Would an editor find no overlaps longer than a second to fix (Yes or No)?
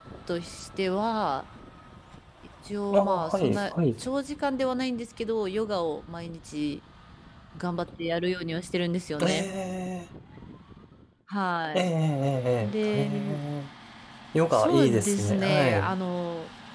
No